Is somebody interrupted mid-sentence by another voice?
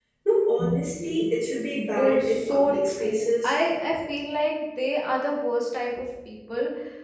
Yes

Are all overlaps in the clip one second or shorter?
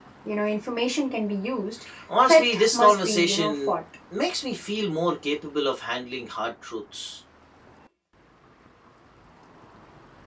No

